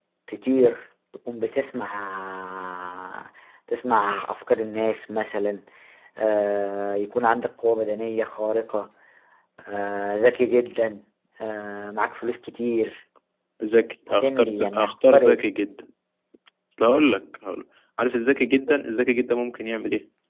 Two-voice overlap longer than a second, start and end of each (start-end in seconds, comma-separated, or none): 14.1-15.4